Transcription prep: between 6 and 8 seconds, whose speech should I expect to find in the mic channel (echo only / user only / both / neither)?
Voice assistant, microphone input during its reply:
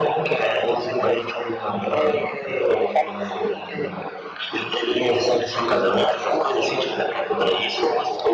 echo only